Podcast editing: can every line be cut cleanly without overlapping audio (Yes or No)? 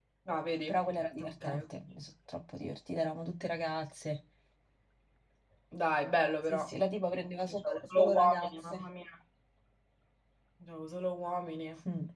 No